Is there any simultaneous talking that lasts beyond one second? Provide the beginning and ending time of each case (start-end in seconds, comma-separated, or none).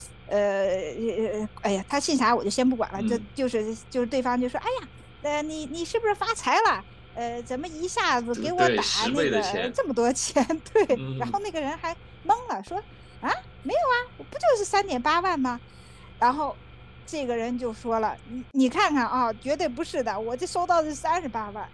8.3-9.8